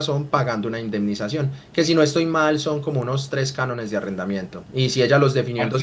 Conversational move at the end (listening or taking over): listening